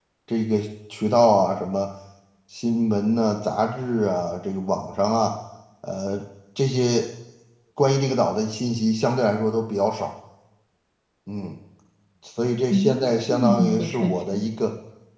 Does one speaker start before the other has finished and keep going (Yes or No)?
Yes